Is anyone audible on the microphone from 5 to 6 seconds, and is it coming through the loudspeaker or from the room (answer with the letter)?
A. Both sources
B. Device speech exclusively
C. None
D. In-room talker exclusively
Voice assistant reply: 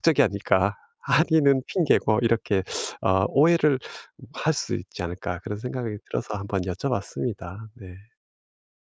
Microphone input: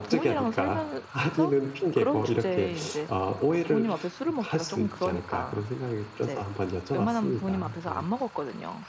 A